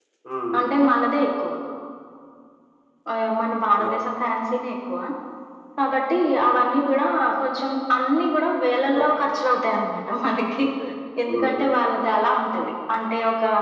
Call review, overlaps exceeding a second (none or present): none